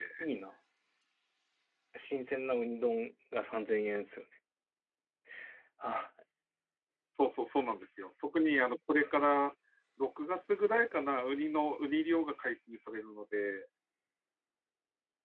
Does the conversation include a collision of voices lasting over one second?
No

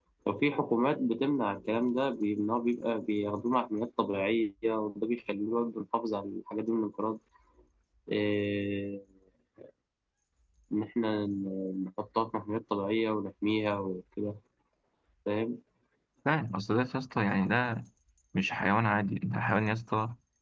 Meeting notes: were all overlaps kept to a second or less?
Yes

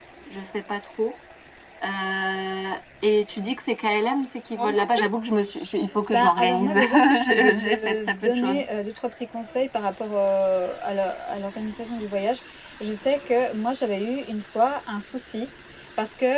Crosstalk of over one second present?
Yes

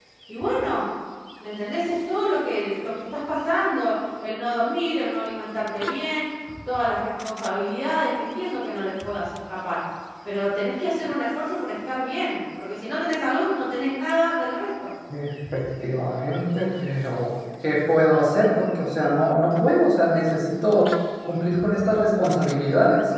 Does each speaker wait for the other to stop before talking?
Yes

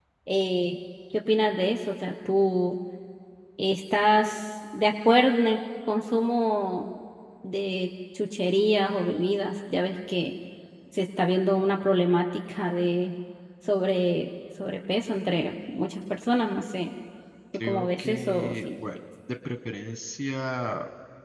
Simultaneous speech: Yes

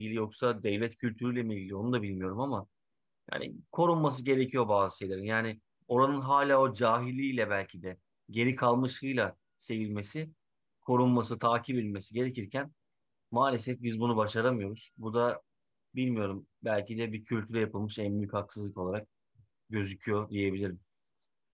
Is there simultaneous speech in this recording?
No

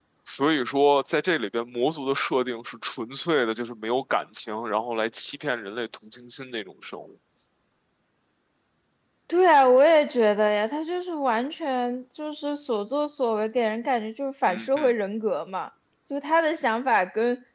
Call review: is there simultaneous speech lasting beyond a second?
No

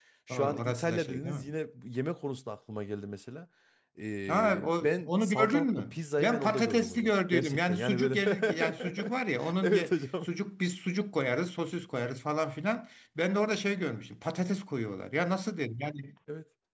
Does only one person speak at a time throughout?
No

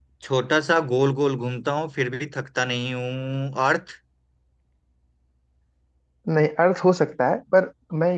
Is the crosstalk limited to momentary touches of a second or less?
Yes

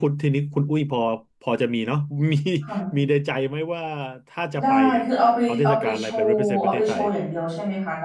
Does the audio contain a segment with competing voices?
Yes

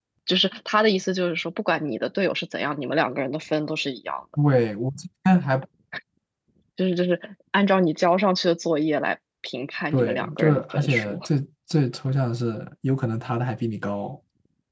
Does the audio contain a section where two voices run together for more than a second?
Yes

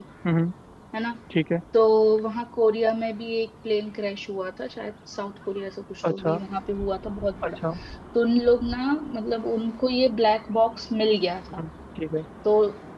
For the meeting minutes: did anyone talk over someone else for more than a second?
No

